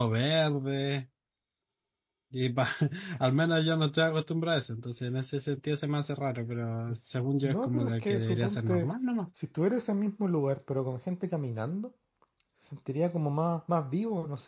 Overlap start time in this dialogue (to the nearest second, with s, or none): 7 s